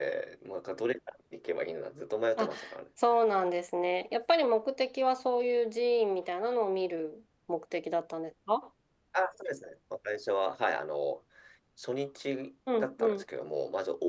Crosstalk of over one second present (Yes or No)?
No